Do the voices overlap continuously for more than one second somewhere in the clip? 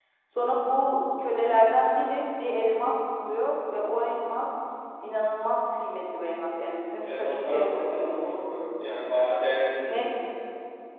Yes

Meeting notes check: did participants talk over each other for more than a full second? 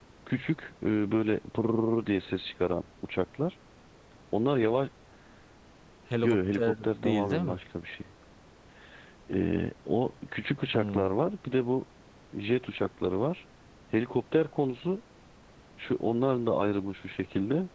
Yes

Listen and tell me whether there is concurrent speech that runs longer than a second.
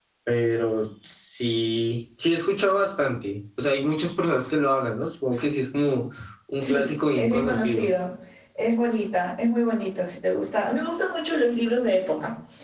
Yes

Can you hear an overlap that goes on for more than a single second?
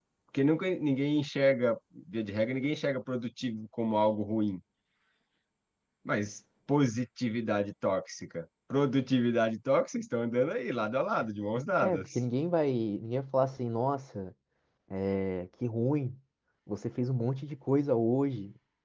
No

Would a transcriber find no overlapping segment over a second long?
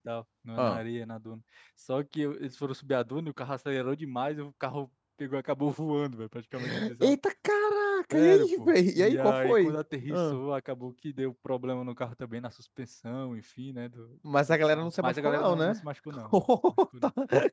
No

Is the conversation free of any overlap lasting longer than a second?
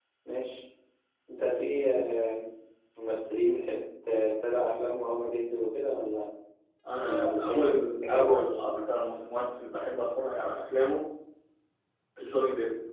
No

